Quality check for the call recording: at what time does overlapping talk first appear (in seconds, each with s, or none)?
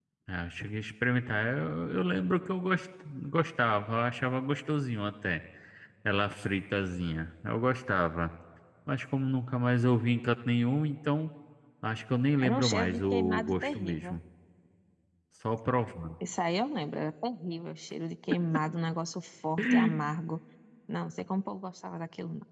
12.4 s